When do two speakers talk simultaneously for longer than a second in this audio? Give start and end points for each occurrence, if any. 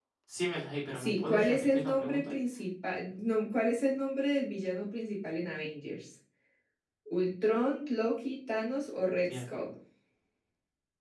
0.9-2.3

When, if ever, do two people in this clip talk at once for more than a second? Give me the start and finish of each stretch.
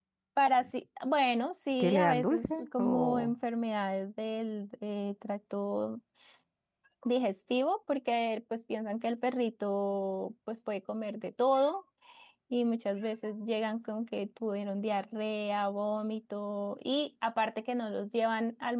1.8-3.3

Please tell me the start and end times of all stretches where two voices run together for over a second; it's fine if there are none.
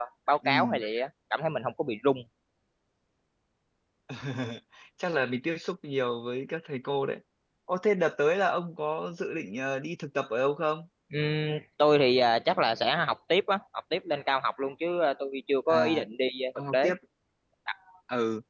none

